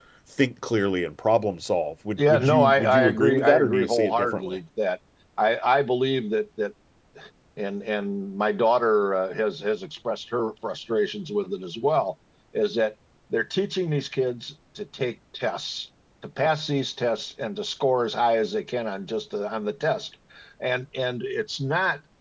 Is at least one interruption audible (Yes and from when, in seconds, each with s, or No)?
Yes, from 2.2 s